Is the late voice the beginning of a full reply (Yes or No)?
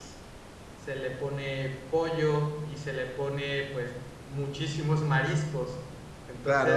Yes